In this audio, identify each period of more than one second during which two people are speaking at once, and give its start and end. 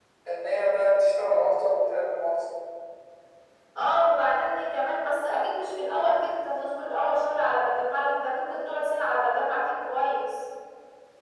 none

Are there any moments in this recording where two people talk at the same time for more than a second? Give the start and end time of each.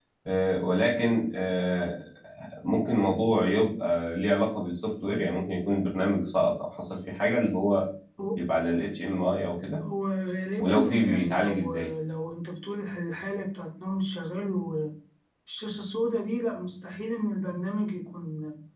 10.6-11.9

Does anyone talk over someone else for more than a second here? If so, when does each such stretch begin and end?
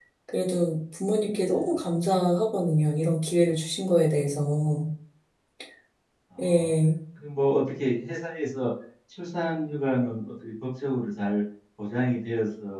none

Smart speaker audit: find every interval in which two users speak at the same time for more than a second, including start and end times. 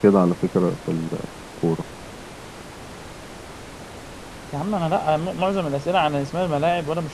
none

